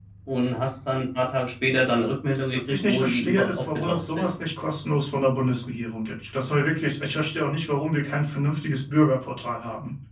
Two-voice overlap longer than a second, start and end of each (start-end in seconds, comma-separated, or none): 2.5-4.3